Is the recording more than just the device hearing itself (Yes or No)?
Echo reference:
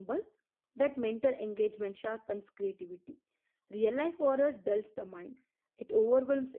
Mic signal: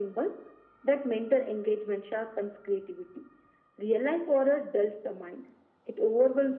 No